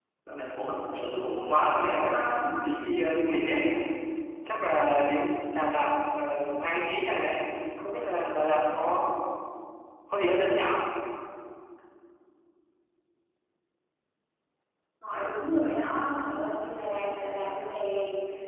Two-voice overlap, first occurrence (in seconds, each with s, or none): 1.0 s